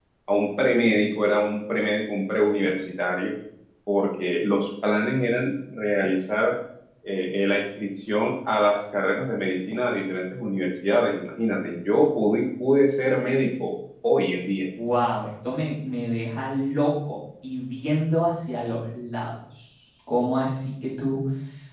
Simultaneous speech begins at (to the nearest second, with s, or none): none